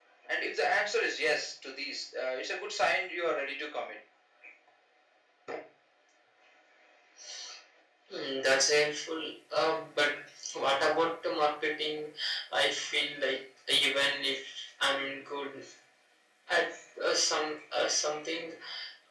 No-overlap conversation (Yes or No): Yes